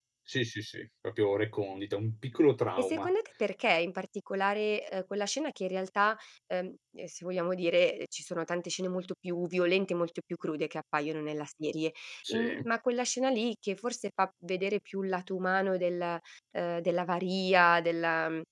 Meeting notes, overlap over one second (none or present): none